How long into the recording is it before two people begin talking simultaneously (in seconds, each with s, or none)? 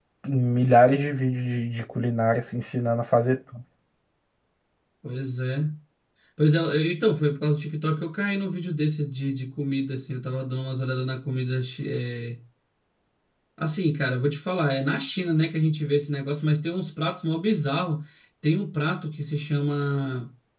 none